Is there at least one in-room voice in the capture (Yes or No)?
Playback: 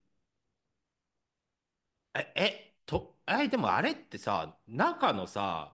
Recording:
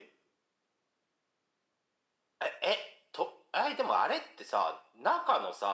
No